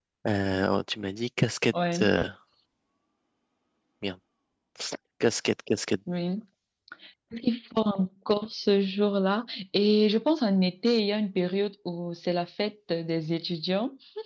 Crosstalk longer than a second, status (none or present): none